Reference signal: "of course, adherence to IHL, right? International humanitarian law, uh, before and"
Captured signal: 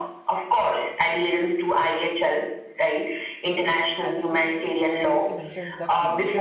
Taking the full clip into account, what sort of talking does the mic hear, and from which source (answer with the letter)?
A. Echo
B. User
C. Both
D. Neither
C